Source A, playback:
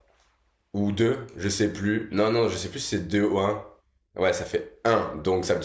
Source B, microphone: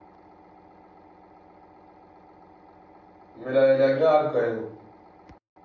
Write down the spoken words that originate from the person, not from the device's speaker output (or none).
Mais là elle est agréable quand même.